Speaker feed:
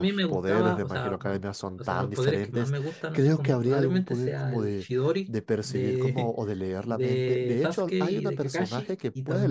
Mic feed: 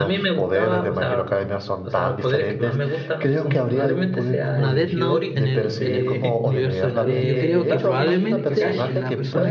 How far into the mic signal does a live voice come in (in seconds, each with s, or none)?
4.4 s